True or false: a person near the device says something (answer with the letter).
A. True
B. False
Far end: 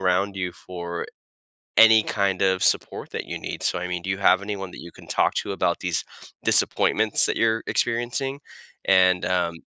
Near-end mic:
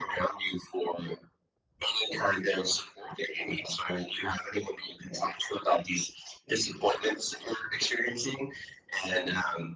B